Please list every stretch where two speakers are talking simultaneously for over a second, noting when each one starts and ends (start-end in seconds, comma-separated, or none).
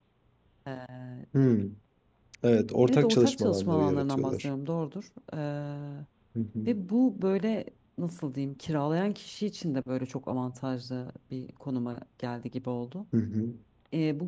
2.9-4.5